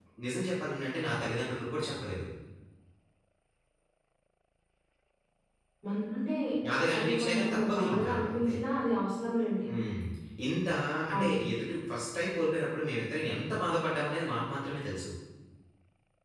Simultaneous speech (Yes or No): Yes